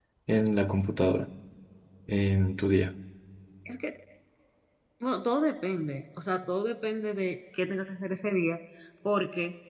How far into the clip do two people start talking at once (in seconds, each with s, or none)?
none